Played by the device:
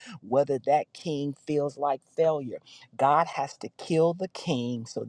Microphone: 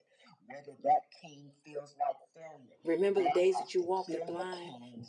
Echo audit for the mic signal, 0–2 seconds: echo only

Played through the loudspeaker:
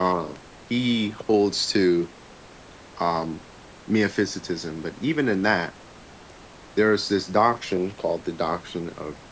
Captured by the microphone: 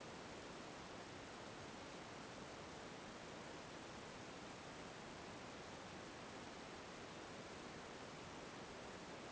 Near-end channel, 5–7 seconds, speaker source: neither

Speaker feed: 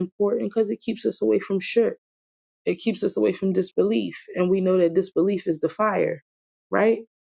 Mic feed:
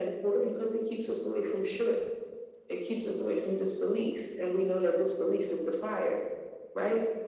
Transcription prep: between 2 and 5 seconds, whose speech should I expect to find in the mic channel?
echo only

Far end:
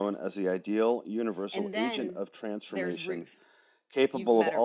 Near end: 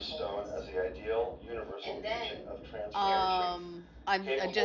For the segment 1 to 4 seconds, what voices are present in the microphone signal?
both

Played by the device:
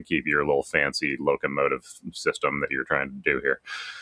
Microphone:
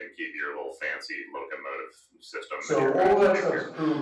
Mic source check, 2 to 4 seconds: both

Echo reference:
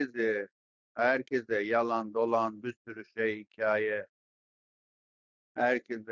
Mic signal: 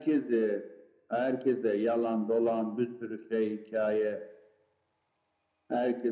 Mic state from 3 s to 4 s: echo only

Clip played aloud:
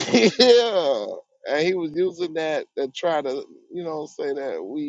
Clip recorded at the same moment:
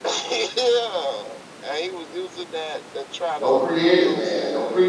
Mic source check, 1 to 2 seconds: echo only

